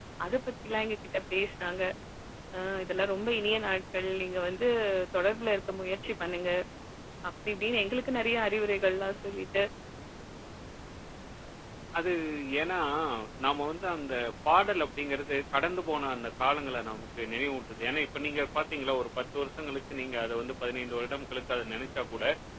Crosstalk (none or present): none